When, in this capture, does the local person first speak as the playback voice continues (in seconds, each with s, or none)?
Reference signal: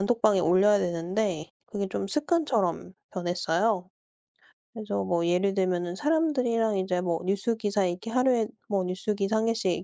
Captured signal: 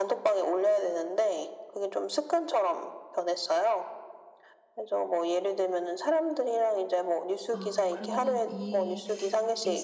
7.5 s